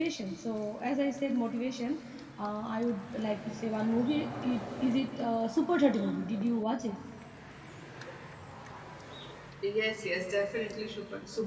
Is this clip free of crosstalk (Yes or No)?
Yes